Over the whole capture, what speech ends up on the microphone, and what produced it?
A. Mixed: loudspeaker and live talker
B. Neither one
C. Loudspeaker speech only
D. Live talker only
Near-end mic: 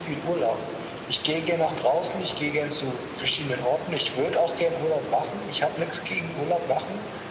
C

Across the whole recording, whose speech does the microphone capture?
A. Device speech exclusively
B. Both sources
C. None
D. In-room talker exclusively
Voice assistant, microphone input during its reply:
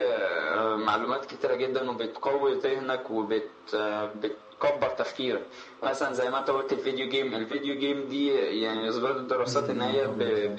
B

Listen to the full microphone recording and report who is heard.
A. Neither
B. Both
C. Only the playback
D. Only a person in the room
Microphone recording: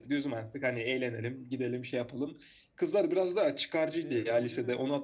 B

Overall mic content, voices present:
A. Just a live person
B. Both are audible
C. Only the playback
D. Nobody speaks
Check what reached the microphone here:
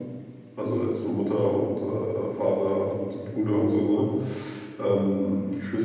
C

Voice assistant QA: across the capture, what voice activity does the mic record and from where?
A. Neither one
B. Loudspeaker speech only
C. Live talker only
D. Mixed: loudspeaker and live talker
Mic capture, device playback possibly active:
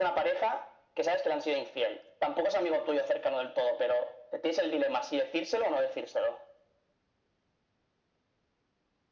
B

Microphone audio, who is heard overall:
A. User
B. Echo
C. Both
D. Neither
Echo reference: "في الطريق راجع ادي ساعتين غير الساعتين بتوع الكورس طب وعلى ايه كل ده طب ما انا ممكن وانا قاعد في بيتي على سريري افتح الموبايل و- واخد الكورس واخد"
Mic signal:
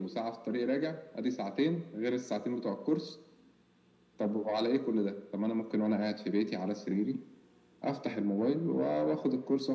B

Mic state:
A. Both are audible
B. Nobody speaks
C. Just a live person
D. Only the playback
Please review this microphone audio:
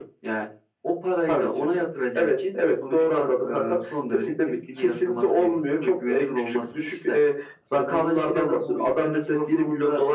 D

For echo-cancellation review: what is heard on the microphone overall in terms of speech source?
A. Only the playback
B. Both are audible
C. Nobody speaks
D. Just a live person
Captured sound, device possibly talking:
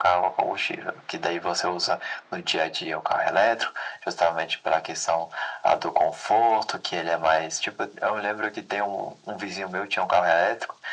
A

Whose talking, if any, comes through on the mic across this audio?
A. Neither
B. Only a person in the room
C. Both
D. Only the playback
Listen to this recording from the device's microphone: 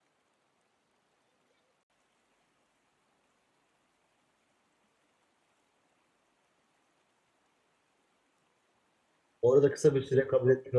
B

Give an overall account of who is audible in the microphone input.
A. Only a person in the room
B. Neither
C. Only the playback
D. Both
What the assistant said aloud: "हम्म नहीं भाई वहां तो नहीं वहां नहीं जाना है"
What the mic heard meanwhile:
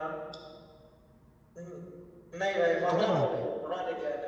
D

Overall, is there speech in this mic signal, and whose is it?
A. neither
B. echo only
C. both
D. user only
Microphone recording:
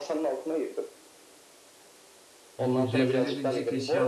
C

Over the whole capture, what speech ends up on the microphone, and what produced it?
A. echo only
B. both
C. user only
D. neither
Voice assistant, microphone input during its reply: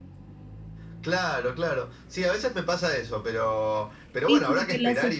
B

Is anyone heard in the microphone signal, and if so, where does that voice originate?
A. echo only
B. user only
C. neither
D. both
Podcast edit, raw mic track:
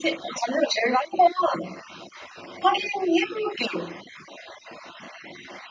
A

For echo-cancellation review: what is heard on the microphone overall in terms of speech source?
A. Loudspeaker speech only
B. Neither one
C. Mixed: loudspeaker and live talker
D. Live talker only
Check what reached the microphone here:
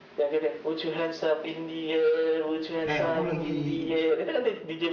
C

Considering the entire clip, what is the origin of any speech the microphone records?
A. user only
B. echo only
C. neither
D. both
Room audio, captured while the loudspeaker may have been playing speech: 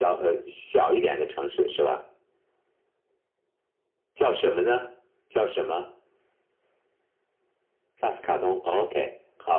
B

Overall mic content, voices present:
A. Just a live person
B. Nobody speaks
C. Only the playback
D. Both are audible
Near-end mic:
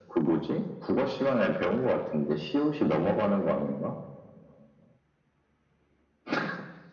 C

